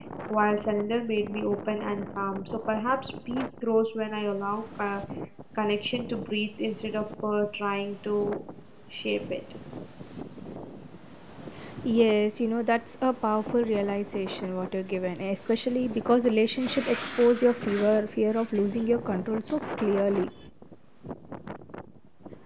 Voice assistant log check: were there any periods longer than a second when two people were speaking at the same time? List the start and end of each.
none

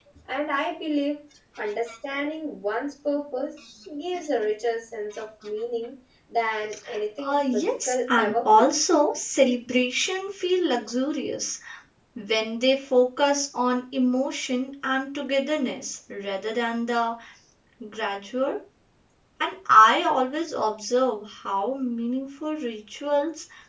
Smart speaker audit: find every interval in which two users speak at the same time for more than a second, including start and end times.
7.2-8.7

